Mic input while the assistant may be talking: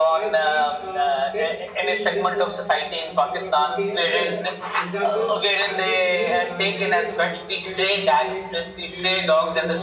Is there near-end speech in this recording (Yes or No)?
Yes